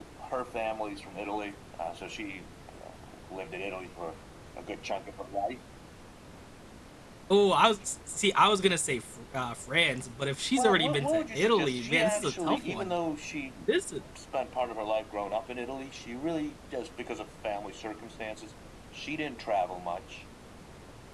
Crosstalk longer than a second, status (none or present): present